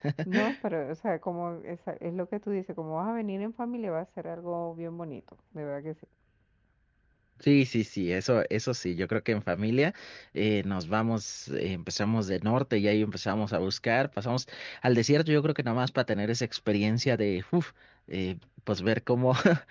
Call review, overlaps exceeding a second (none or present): none